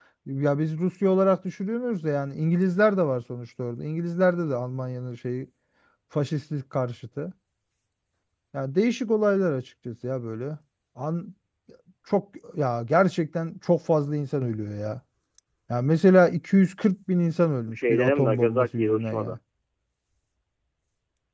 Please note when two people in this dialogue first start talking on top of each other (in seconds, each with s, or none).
17.7 s